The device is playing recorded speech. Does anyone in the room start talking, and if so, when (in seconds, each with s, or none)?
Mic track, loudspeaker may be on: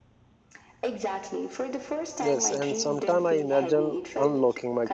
2.2 s